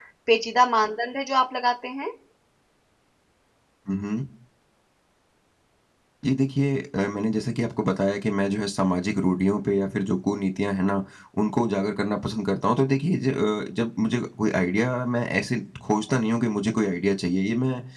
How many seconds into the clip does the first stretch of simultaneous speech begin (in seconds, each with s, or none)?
none